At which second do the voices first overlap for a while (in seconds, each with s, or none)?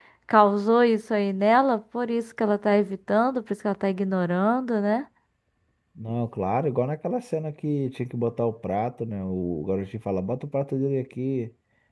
none